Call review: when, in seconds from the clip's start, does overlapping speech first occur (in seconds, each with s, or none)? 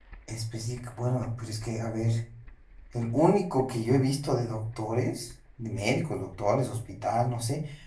none